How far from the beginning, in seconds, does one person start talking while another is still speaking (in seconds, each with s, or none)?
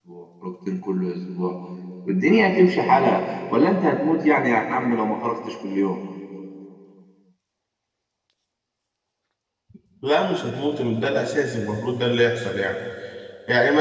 none